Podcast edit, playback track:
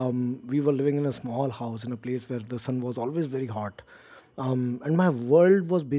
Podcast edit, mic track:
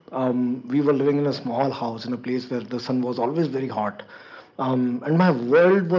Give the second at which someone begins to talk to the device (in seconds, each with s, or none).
none